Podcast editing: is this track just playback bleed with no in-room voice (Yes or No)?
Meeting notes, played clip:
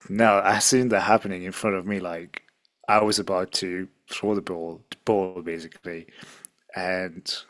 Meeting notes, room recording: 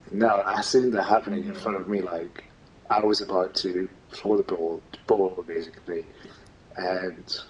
No